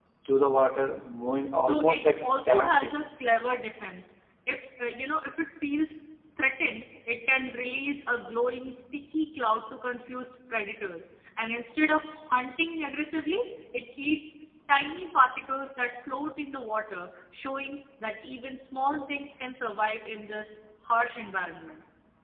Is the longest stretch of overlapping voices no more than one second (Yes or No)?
No